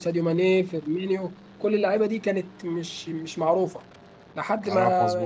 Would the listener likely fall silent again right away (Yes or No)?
Yes